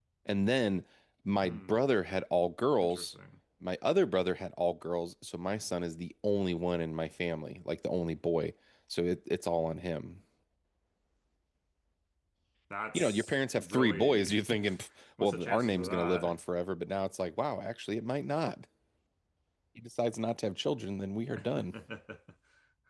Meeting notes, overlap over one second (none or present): present